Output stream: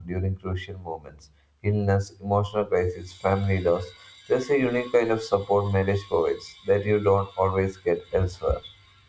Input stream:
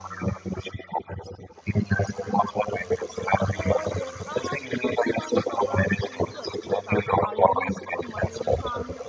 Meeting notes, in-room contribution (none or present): present